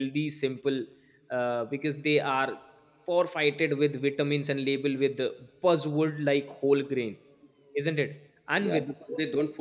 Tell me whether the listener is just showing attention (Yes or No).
No